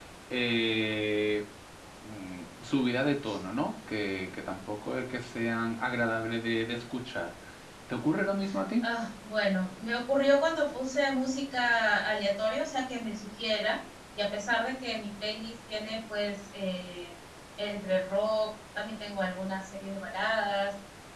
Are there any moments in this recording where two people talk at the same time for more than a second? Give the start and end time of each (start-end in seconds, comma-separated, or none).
none